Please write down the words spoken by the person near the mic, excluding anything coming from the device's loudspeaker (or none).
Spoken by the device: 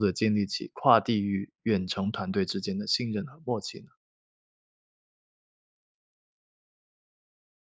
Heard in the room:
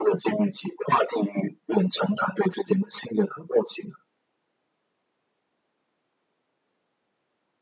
none